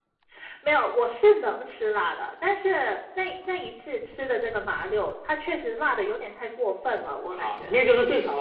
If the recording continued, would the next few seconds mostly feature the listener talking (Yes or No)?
Yes